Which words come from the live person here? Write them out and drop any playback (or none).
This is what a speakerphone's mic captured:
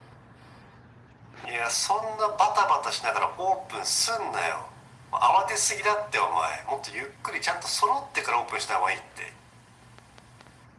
none